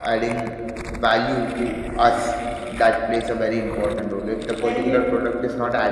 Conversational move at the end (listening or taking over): listening